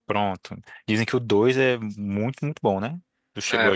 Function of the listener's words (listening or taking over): taking over